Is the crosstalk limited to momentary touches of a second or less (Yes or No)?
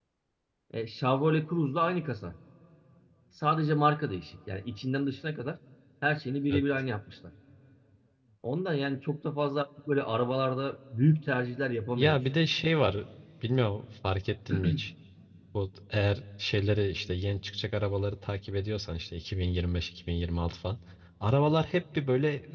Yes